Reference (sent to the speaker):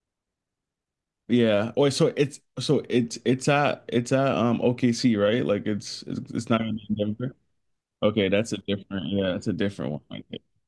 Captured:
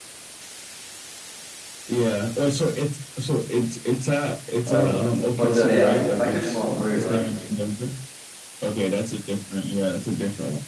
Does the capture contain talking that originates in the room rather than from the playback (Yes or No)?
Yes